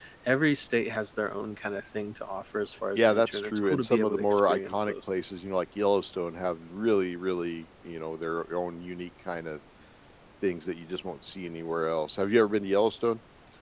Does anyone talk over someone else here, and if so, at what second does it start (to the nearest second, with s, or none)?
3 s